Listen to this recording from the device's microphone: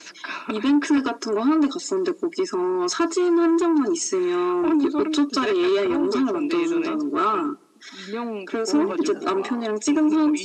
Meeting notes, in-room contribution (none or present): present